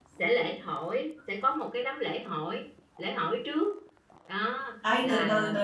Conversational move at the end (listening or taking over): taking over